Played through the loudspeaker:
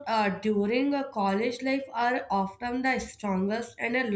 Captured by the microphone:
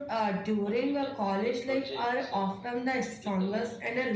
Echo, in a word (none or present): present